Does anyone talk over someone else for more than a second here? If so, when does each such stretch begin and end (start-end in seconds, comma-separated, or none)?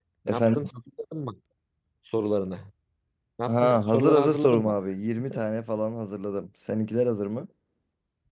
3.5-4.8